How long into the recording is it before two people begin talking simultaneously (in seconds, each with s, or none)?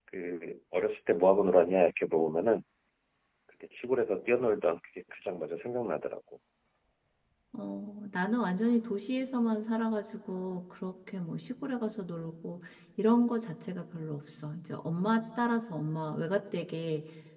none